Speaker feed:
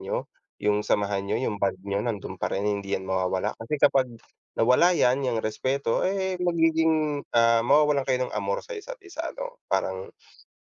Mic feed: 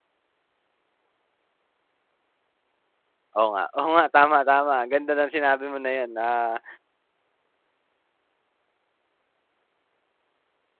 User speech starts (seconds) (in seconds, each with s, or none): 3.4 s